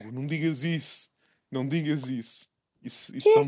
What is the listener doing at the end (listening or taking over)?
listening